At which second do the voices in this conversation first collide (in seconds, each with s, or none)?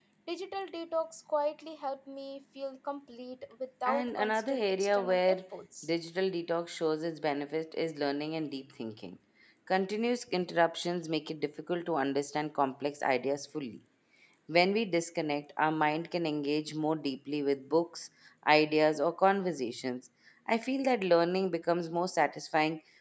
3.9 s